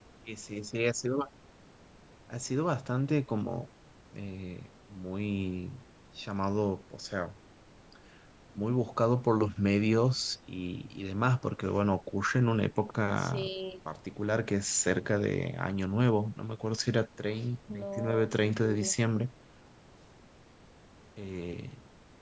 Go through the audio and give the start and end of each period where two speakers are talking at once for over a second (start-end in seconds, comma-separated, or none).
17.7-18.9